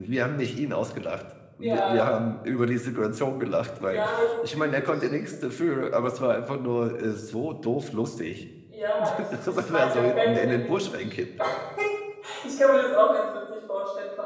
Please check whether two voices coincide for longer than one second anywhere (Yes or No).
Yes